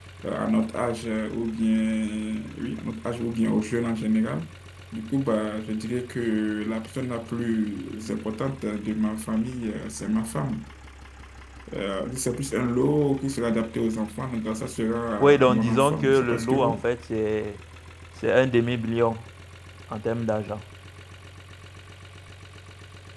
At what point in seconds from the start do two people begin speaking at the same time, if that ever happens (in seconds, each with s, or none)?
15.2 s